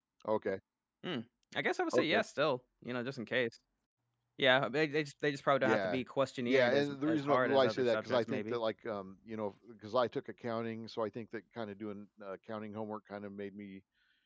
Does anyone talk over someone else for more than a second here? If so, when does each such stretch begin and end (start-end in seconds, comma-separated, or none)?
6.5-8.6